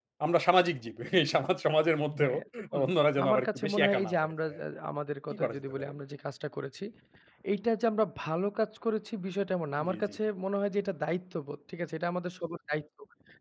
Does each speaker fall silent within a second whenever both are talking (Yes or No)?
No